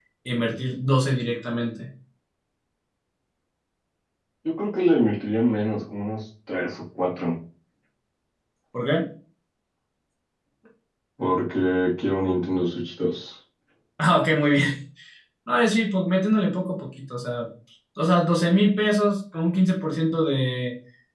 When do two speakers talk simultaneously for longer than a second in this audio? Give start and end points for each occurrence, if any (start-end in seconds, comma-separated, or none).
none